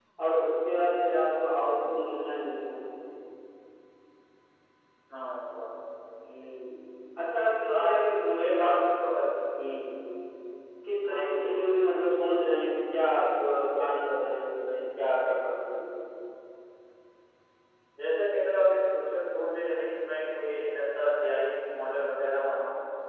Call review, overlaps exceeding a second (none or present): none